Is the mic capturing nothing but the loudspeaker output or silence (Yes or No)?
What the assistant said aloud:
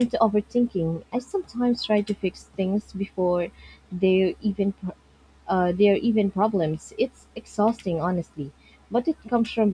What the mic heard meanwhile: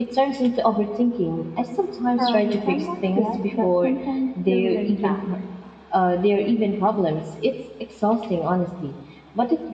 No